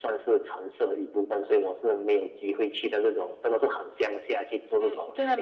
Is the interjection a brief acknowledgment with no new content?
No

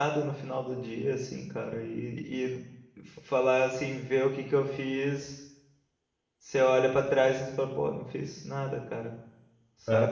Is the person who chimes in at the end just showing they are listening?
No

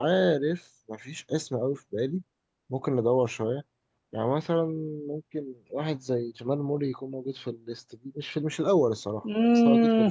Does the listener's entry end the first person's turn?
Yes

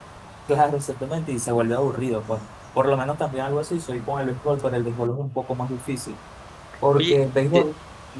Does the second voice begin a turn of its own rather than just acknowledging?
Yes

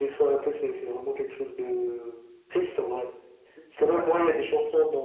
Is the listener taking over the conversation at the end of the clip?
No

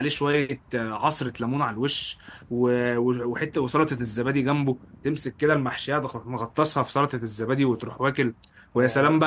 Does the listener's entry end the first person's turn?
No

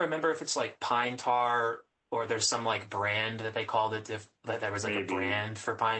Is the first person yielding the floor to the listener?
No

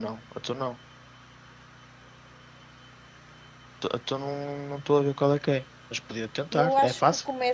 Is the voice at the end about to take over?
Yes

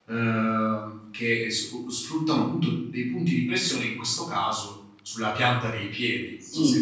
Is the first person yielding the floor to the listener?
Yes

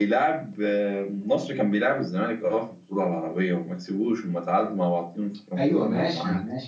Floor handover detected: Yes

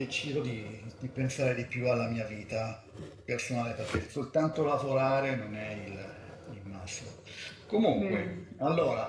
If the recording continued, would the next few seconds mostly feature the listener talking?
No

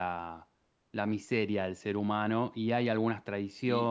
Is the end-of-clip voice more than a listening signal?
Yes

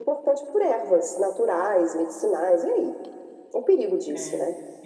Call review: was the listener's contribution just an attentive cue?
No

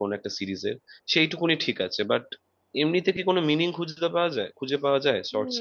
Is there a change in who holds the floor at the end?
Yes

